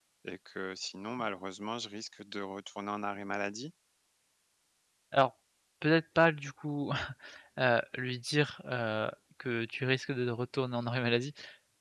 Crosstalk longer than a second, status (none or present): none